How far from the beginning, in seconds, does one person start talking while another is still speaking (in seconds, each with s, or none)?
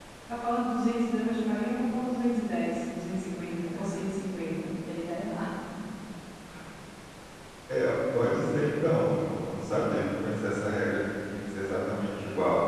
none